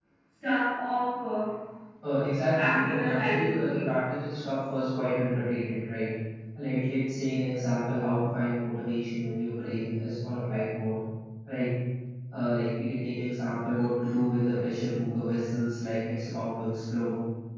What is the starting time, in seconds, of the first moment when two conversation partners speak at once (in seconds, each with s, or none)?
2.5 s